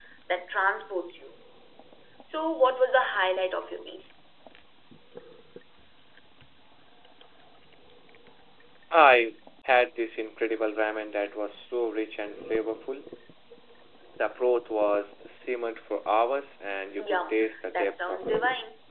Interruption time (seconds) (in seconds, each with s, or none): 16.9 s